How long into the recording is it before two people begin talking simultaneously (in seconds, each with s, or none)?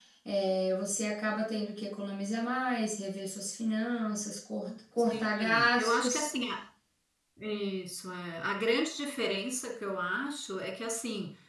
5.0 s